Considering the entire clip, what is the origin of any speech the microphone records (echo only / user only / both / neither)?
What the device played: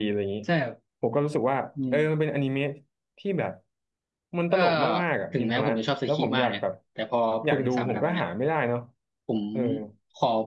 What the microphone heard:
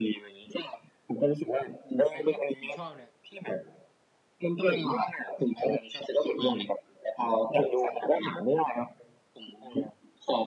both